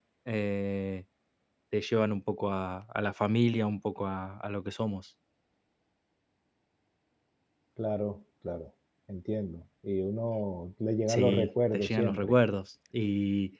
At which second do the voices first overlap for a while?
11 s

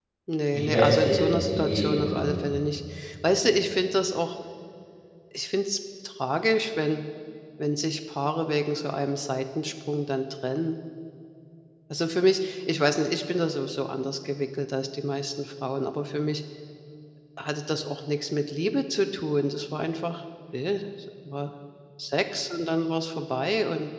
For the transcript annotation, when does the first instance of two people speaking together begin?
1 s

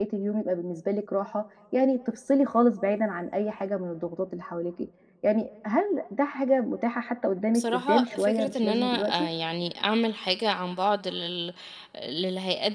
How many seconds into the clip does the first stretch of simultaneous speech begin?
8 s

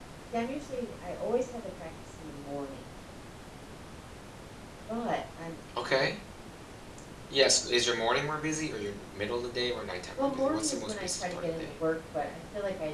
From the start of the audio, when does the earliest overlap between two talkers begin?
10 s

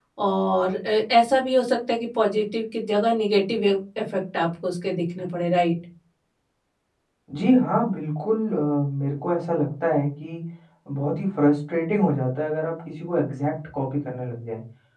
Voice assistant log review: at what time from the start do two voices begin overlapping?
none

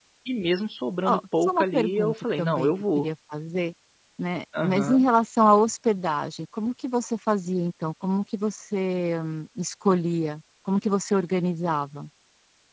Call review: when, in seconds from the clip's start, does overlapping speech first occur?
1 s

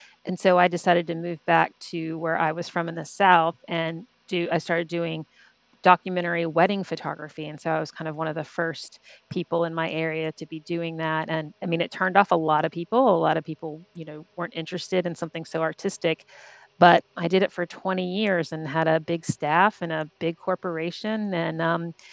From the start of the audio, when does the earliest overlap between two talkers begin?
none

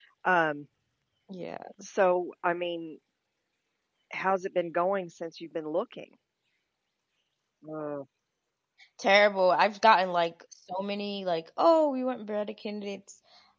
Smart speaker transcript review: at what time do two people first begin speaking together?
none

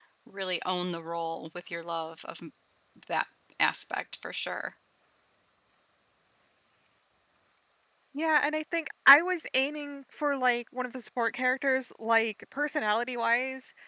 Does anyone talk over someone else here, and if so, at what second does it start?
none

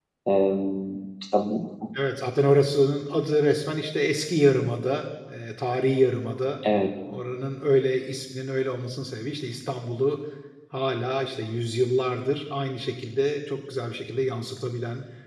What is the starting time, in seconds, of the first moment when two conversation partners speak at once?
none

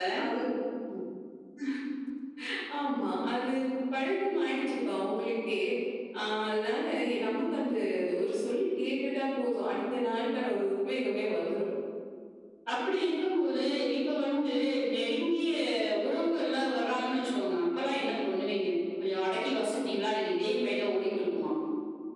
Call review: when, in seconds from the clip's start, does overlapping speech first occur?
none

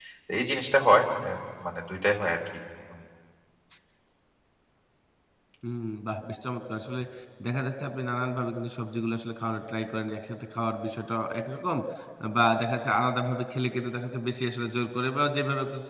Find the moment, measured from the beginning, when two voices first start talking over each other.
none

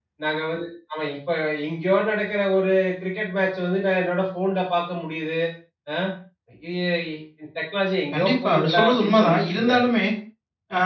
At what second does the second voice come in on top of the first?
8 s

